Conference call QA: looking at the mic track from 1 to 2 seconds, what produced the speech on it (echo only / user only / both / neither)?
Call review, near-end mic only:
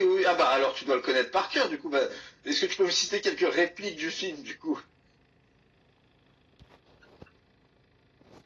echo only